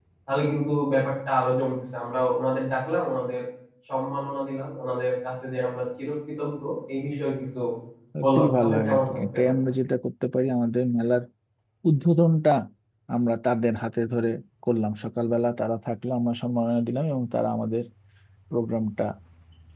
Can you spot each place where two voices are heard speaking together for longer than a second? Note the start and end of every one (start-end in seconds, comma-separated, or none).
8.2-9.5